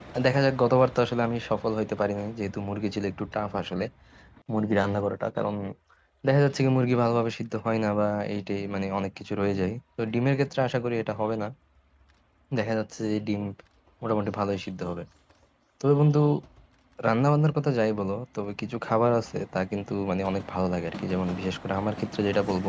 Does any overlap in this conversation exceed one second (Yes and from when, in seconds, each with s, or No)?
No